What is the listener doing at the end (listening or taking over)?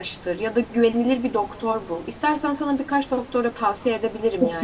taking over